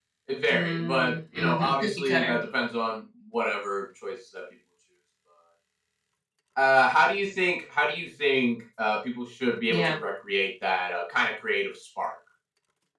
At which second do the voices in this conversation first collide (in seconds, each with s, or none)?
0.5 s